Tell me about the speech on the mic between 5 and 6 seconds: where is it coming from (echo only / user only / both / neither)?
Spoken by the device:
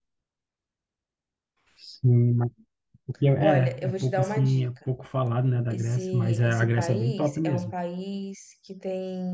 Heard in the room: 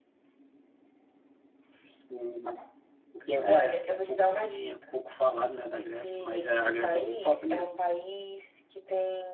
echo only